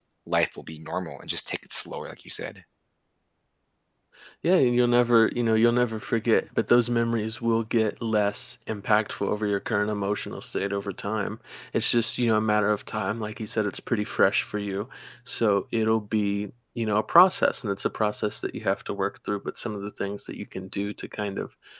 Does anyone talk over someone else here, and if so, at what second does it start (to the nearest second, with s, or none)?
none